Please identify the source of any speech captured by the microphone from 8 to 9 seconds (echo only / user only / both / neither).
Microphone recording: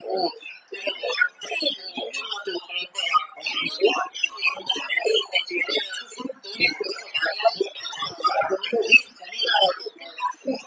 echo only